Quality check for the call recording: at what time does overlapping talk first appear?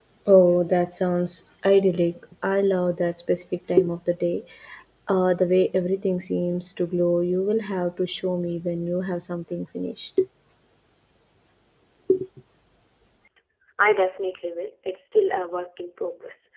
none

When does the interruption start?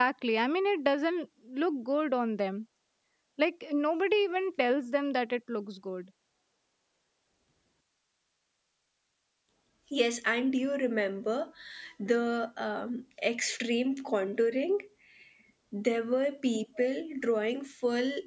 none

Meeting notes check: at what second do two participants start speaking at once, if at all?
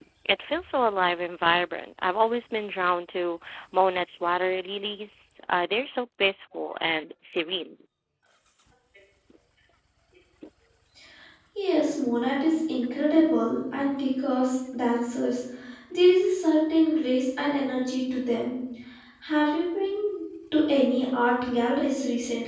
none

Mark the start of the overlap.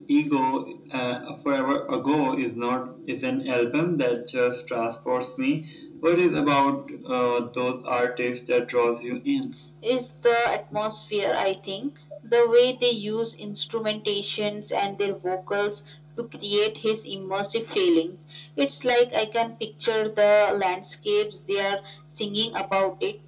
none

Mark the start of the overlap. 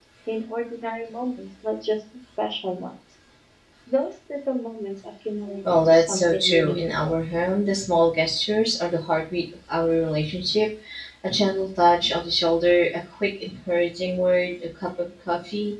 5.6 s

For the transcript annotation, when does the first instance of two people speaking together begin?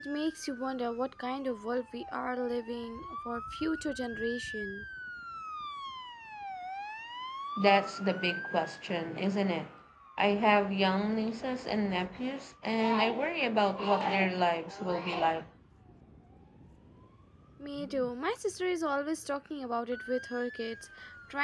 none

